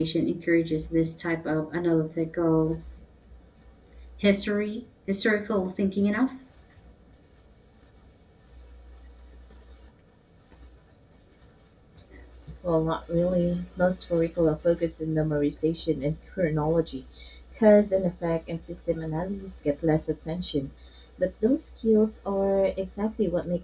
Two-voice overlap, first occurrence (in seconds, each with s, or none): none